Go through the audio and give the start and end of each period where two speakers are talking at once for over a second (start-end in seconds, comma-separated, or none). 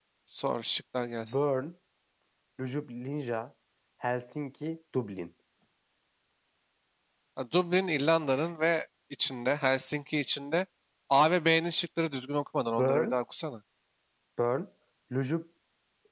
none